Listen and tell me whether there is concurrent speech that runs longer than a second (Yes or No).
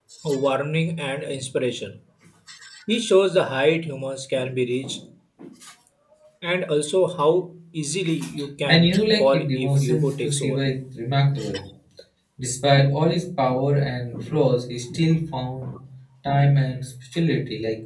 Yes